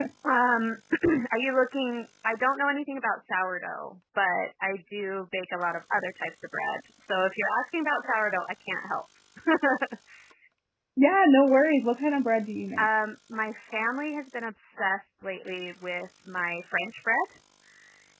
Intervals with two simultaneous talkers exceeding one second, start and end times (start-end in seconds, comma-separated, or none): none